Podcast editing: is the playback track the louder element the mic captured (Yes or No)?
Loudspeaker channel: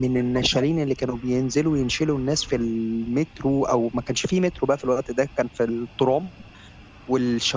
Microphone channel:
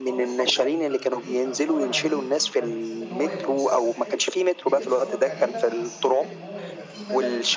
Yes